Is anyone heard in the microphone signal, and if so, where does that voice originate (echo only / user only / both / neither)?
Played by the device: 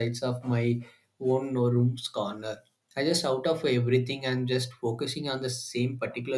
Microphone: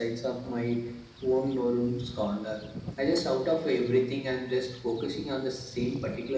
echo only